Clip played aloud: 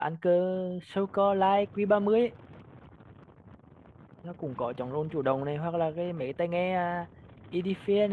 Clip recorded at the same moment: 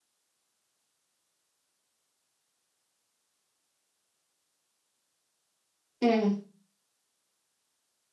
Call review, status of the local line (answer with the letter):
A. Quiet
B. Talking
B